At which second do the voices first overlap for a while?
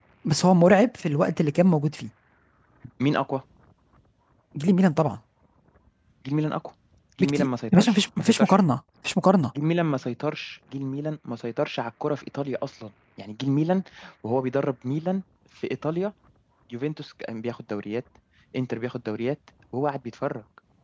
7 s

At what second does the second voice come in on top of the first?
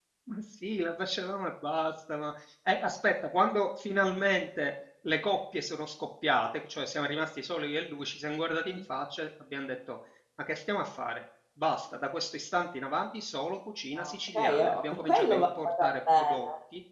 14 s

